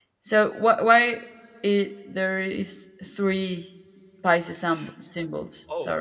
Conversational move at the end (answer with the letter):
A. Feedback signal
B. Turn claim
B